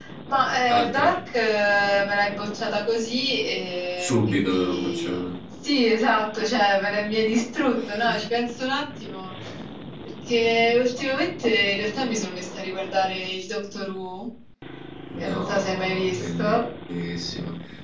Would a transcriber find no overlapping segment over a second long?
No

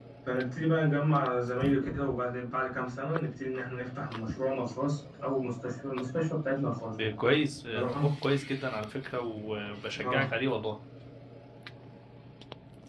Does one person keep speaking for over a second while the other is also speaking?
No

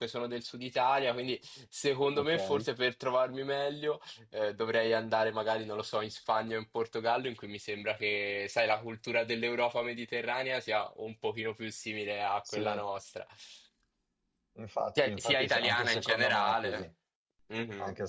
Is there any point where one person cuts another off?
Yes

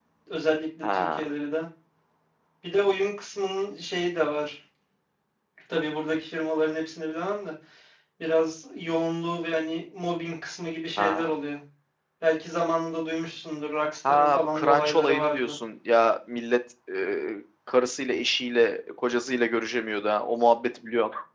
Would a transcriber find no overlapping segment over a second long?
No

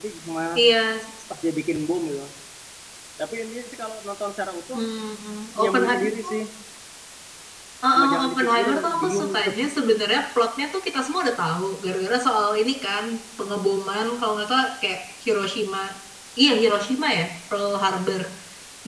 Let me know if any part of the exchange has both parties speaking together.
Yes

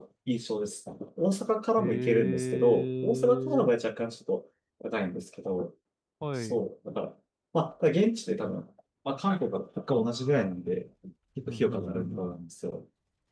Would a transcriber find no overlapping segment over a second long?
No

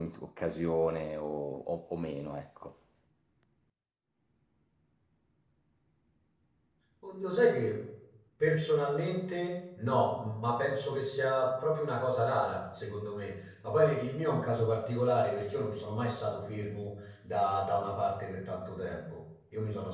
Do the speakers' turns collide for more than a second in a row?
No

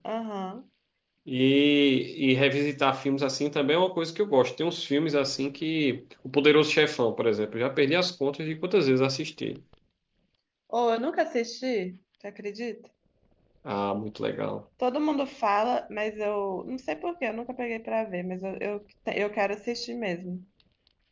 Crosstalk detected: No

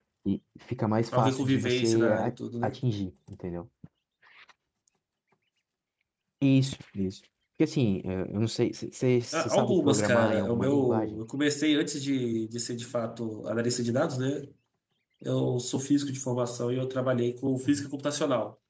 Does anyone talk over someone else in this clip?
Yes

